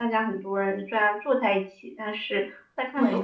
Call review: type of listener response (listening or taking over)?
taking over